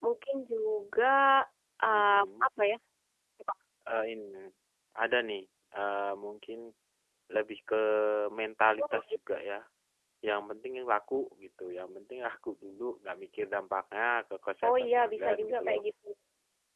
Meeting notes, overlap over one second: present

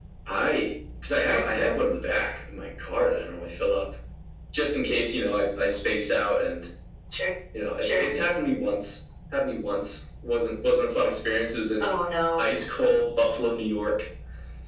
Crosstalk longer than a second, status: none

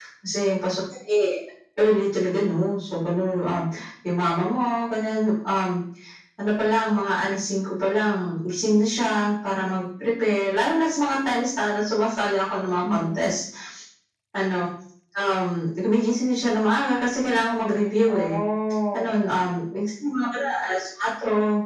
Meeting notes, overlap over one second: none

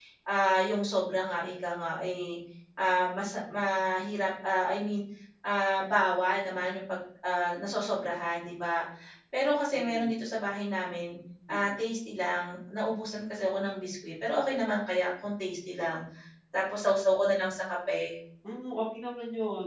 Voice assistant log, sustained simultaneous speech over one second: none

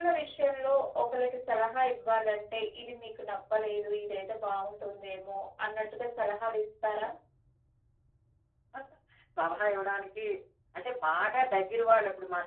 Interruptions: none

